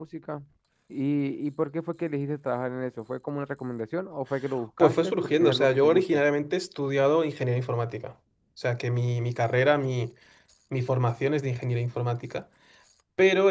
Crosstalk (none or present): present